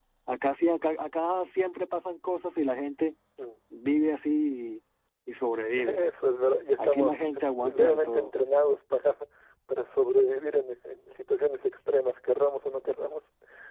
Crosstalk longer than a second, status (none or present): present